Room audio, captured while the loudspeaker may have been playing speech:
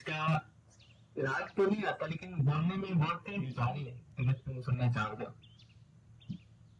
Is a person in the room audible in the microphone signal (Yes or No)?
Yes